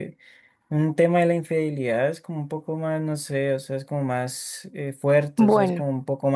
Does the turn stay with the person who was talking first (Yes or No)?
Yes